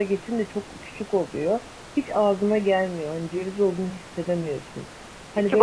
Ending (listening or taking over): listening